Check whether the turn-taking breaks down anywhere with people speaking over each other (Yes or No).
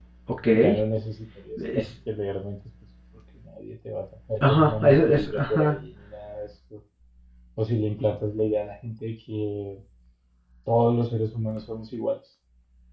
Yes